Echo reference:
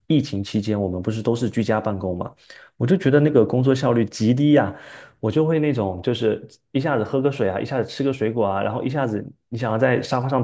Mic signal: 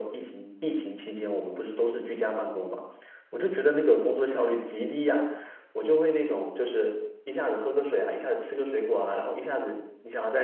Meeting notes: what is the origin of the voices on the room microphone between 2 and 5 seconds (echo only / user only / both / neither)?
echo only